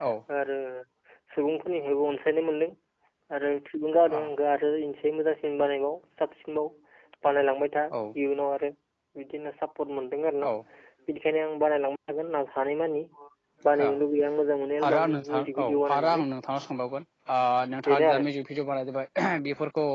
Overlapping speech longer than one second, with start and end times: 14.8-16.2

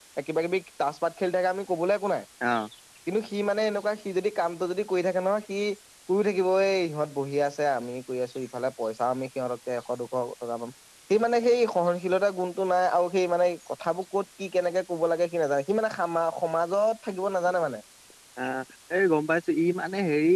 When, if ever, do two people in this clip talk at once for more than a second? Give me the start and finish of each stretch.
none

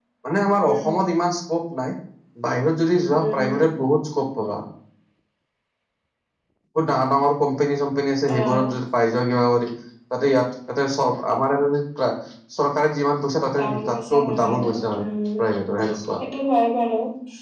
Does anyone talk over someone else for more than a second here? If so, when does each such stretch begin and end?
13.6-14.8

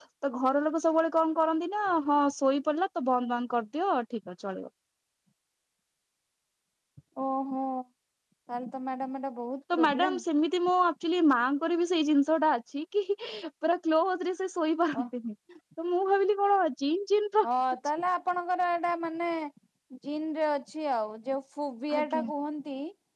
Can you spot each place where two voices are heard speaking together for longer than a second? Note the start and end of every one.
none

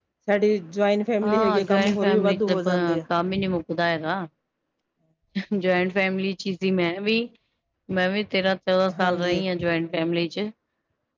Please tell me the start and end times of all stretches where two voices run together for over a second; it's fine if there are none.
1.2-3.0

